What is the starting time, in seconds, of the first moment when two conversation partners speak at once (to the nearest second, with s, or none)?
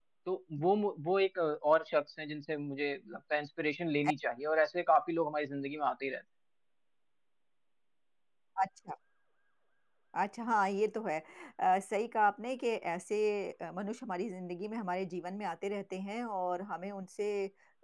none